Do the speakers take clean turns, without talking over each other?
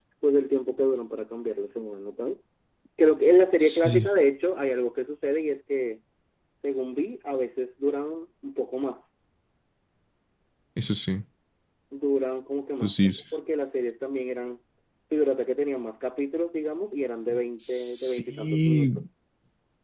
No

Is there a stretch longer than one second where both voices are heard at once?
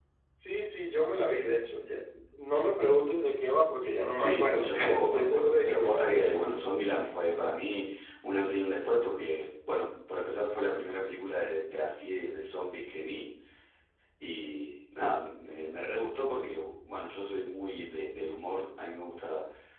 Yes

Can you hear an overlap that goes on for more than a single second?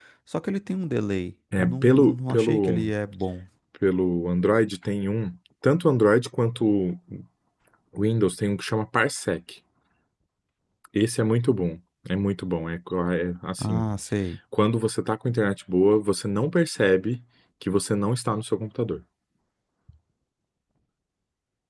Yes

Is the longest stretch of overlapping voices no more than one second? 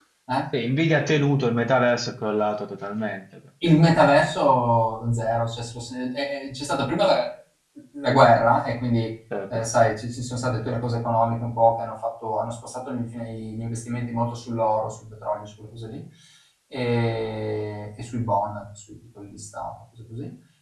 Yes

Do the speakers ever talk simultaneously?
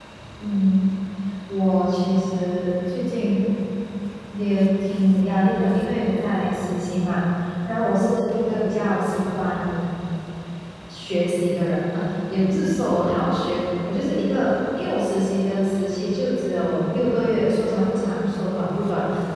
No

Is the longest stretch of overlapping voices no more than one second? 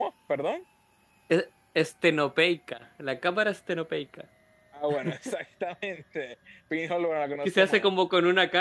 Yes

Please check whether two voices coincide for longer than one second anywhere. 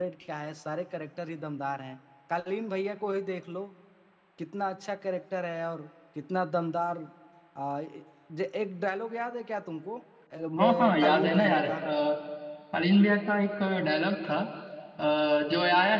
Yes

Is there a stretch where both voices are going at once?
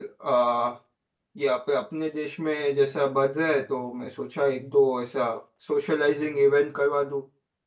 No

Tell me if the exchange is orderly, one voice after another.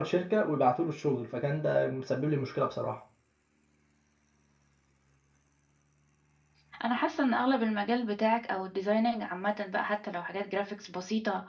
Yes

